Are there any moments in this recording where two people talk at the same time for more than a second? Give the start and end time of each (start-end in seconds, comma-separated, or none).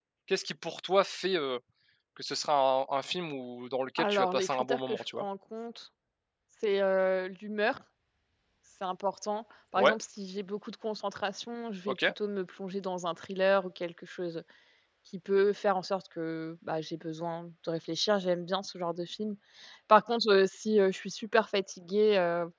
4.0-5.2